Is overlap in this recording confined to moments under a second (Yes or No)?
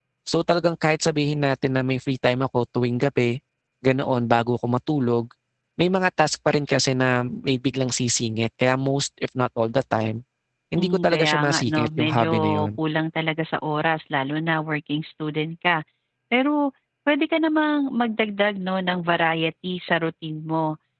No